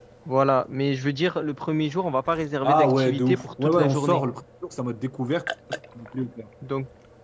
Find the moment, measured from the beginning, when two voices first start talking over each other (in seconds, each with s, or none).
2.6 s